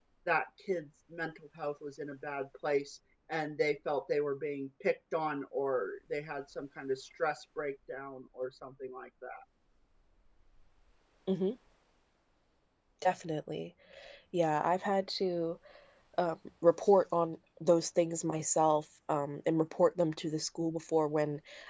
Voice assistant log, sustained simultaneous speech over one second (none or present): none